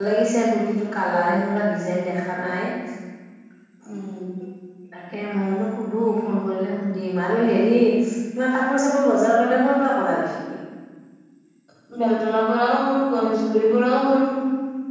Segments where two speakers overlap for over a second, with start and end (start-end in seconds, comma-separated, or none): none